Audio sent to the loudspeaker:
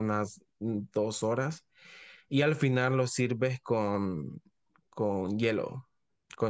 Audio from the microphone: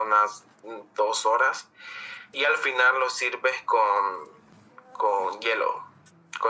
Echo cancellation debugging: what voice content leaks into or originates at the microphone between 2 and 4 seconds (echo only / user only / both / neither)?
echo only